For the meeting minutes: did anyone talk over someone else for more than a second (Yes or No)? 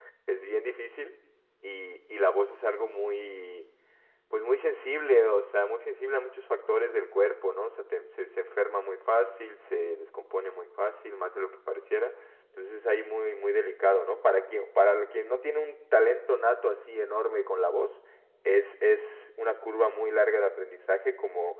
No